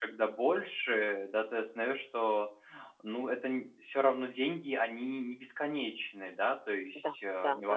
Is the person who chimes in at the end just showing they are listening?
No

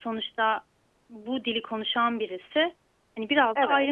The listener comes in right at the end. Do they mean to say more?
No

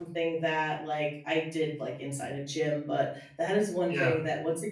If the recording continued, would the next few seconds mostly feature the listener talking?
No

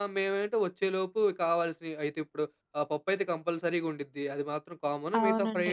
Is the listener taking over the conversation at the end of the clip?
No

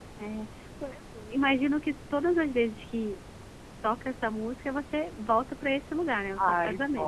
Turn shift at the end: Yes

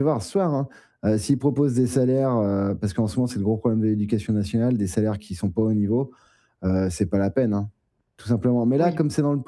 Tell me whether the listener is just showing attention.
Yes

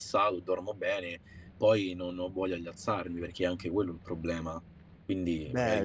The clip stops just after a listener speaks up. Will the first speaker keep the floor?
No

